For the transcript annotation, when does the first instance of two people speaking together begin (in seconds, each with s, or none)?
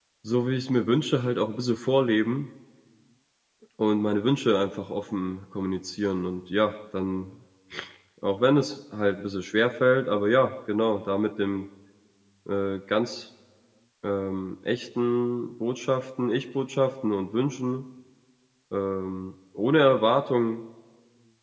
none